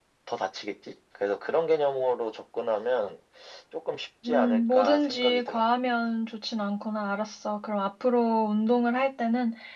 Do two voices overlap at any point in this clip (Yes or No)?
Yes